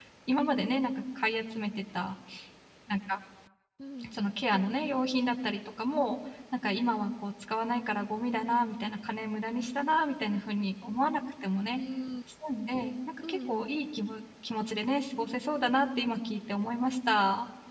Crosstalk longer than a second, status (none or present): none